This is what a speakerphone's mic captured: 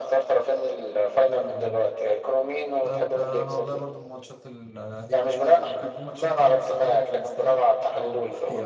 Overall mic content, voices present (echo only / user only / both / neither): both